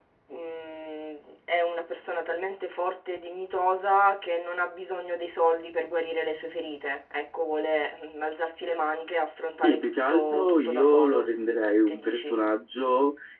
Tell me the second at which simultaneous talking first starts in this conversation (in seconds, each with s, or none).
9.6 s